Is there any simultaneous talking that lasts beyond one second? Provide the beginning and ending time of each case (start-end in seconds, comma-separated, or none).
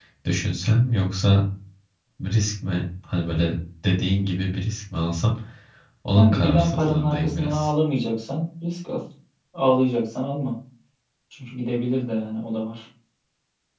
6.1-7.7